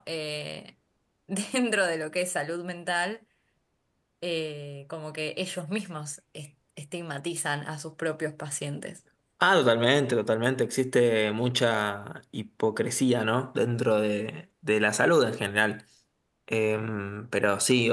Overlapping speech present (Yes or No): No